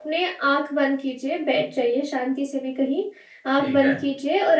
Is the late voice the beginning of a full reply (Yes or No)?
No